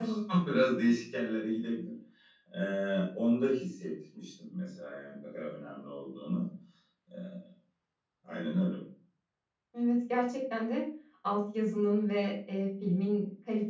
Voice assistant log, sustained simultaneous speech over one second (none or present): none